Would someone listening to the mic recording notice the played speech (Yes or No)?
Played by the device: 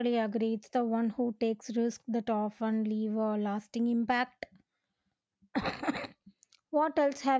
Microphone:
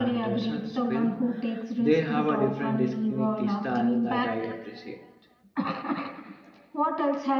Yes